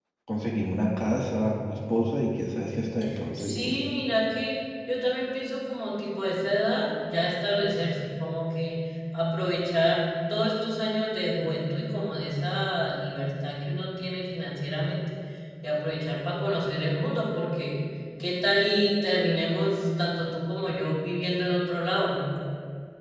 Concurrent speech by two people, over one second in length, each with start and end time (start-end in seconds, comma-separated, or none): none